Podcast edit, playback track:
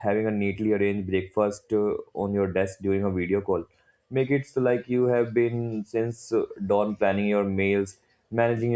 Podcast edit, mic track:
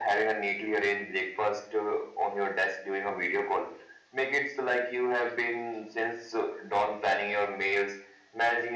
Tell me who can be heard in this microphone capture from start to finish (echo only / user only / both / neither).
echo only